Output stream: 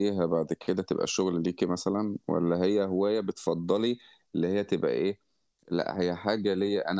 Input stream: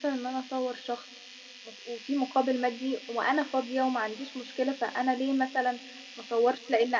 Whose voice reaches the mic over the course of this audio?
user only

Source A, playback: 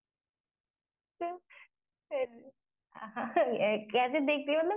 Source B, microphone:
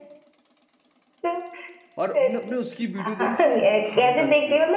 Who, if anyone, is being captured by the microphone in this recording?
both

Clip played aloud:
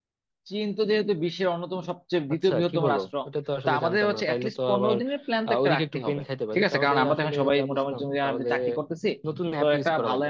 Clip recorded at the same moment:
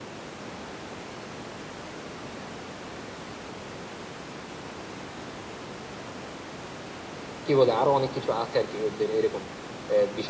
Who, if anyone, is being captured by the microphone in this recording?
user only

